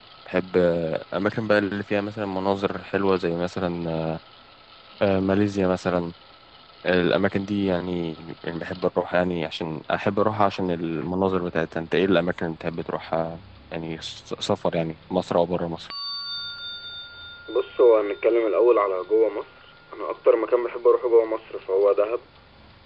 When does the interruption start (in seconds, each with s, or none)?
none